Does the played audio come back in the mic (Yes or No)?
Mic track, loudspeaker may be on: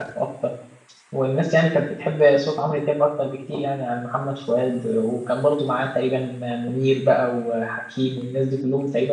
No